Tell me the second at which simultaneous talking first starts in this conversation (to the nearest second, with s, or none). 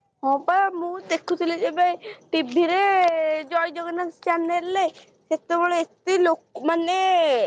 none